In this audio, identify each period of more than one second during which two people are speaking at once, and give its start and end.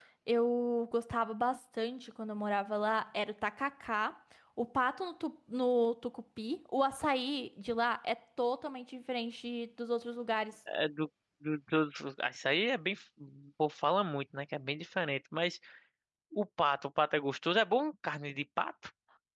none

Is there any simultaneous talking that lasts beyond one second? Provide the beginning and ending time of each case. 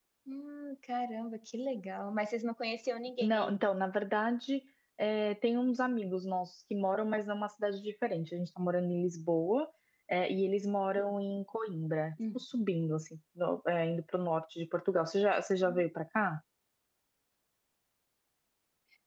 none

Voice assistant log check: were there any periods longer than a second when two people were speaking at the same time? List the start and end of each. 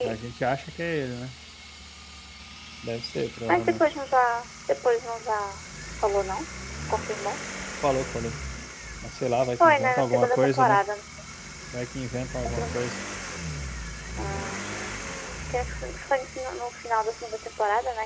9.6-10.8

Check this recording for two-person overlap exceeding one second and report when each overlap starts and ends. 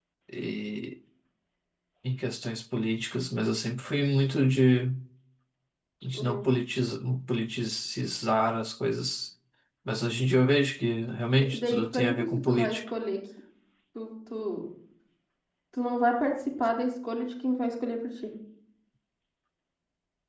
11.5-12.8

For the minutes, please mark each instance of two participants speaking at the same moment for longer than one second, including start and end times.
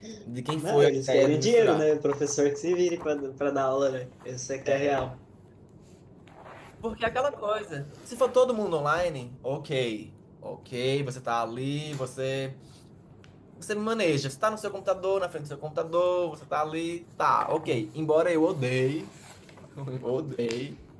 0.6-1.9

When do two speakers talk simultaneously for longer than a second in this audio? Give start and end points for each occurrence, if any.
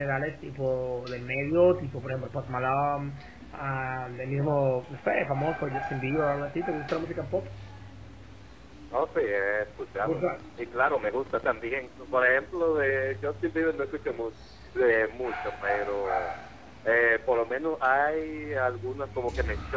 none

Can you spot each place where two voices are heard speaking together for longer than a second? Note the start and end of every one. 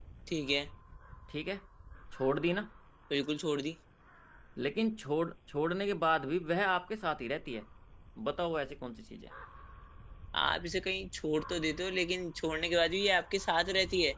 none

